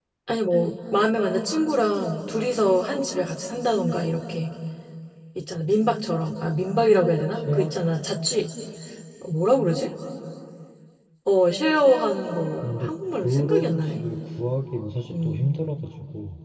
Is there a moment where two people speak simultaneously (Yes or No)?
Yes